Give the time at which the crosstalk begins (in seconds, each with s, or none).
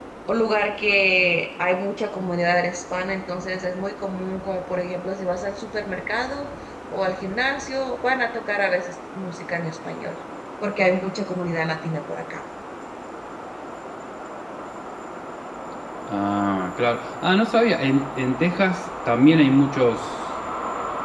none